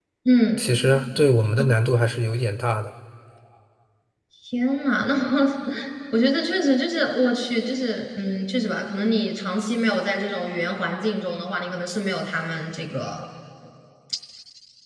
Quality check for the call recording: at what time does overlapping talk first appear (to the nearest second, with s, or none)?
none